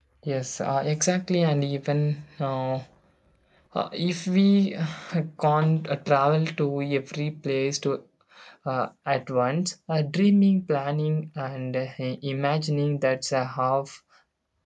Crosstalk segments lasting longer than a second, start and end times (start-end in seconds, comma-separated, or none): none